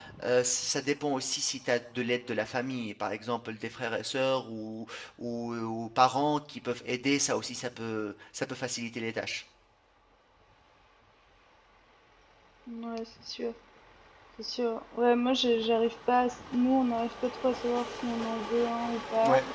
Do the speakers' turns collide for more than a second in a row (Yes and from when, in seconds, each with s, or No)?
No